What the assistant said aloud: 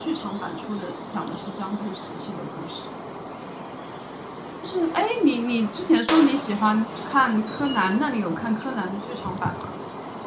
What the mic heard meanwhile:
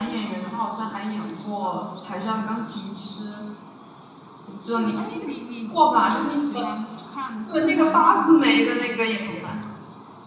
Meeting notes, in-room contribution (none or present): present